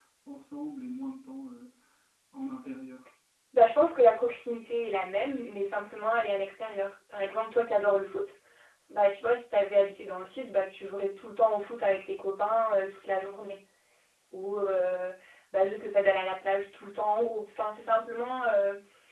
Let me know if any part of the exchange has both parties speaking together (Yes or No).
No